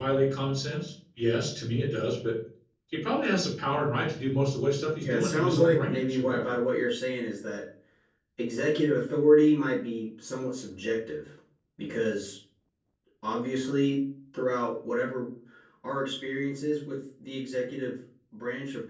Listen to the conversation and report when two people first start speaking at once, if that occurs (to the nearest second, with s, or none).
5 s